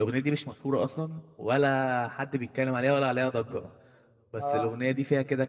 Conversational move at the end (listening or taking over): listening